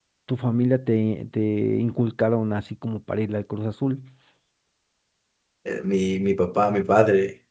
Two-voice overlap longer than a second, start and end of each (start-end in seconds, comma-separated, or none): none